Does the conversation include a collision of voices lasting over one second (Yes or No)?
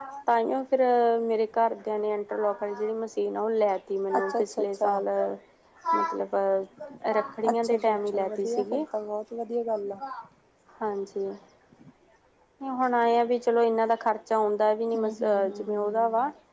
Yes